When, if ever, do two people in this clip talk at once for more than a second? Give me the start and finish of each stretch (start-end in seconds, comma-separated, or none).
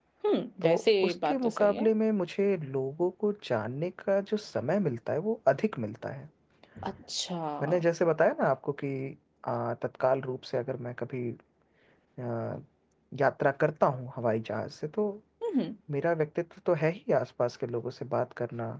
0.6-1.9